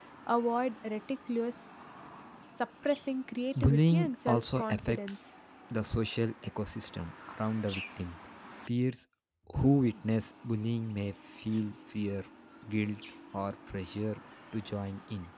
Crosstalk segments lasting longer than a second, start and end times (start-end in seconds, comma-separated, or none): 3.6-5.2